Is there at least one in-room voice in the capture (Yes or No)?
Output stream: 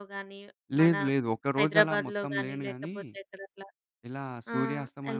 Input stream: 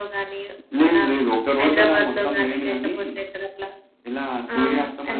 No